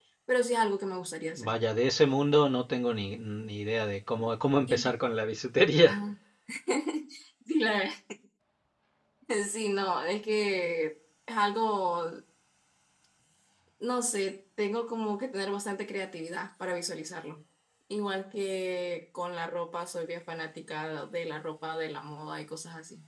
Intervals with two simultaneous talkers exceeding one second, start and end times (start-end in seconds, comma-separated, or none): none